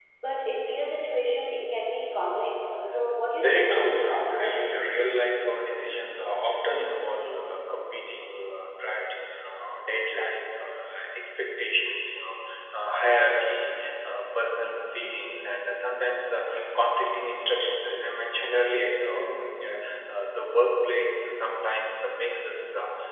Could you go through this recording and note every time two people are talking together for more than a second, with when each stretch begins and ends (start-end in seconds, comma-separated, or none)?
3.3-4.6